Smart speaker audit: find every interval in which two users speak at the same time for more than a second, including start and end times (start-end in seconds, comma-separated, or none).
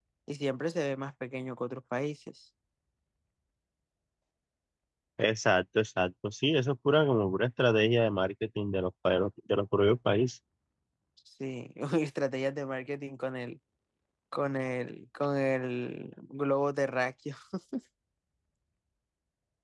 none